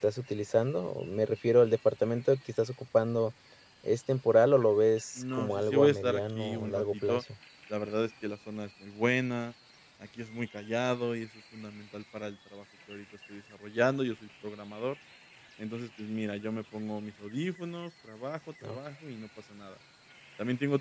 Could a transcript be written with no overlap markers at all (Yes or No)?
No